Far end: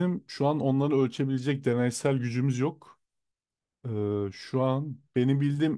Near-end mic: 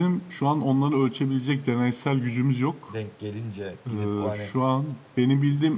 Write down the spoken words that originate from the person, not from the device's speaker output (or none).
denk gelince gidip o hani